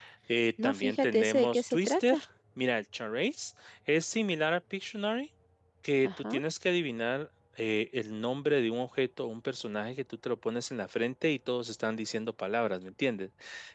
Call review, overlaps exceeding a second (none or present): present